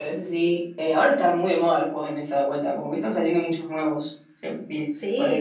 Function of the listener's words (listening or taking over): taking over